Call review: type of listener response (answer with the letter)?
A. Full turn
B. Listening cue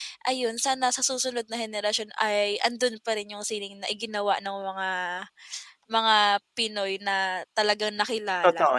A